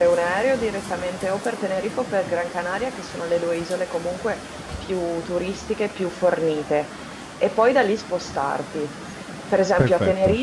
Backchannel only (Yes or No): Yes